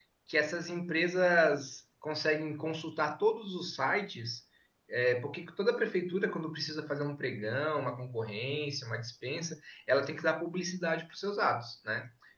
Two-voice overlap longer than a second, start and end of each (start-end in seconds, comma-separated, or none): none